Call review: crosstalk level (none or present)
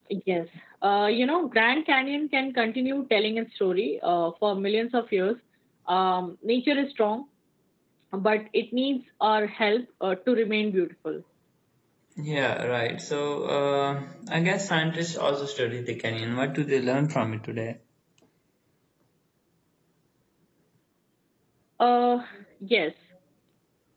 none